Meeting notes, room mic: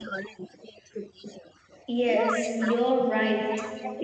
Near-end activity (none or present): present